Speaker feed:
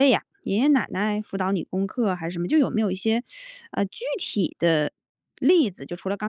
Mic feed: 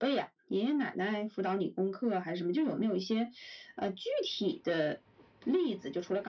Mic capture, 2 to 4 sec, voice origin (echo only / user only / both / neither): echo only